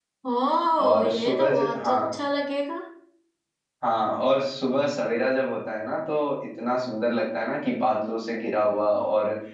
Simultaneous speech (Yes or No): Yes